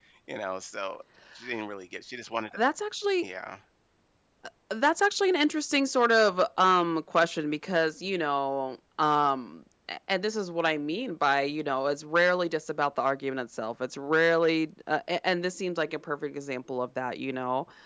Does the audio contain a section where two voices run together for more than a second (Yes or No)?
No